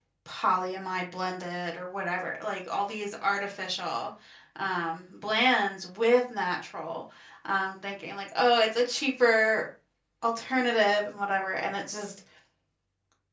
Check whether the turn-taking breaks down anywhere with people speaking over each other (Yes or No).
No